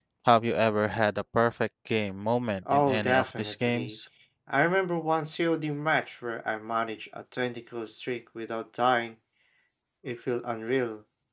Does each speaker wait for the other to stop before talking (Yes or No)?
No